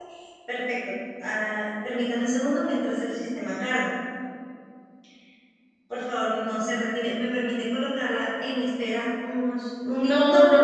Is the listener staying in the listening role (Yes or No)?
No